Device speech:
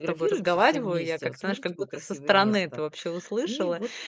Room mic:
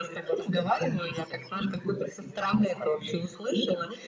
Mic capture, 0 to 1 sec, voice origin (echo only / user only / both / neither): echo only